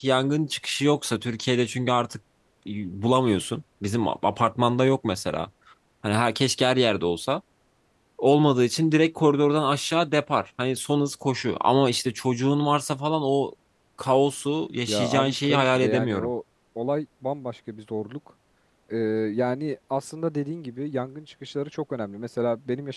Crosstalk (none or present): present